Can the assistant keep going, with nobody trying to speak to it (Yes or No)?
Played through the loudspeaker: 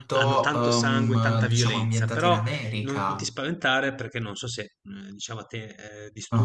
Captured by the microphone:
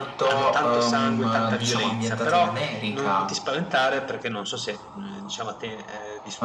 Yes